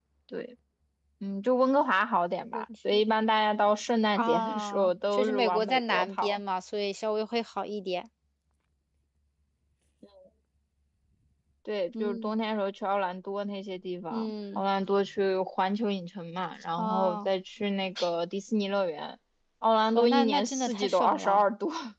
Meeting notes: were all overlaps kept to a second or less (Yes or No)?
No